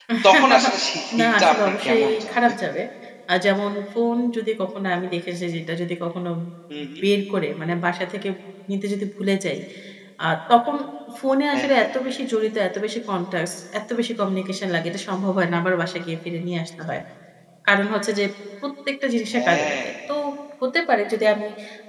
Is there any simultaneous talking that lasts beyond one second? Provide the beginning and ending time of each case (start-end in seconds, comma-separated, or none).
1.2-2.5